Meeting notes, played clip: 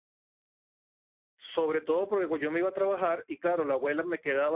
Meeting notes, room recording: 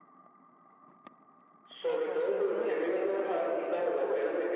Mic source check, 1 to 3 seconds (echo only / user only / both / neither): both